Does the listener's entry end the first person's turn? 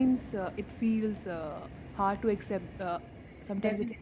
Yes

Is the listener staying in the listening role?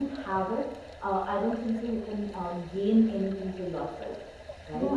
No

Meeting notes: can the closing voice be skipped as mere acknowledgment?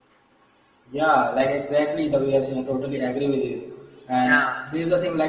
Yes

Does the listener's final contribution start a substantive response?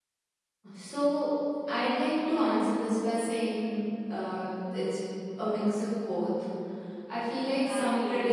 Yes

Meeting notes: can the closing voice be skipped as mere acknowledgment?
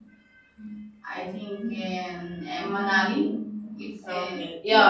No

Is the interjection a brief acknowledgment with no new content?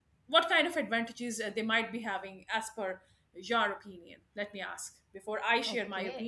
No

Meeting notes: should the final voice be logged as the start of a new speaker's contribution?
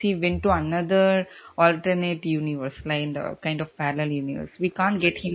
No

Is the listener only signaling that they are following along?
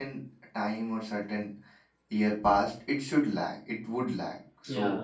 No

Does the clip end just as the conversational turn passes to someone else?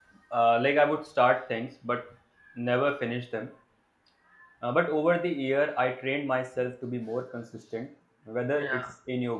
No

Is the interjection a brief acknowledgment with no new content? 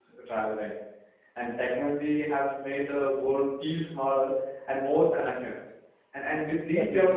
Yes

